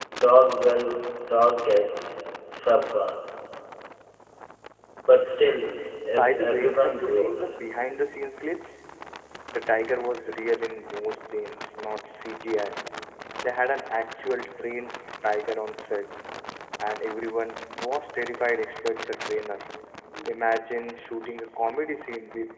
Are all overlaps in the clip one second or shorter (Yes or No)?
No